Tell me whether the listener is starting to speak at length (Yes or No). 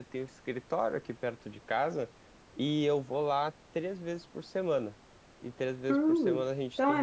Yes